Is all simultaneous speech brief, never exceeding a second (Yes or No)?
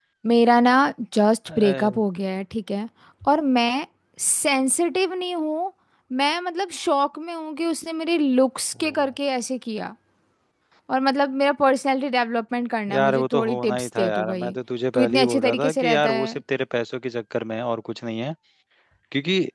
No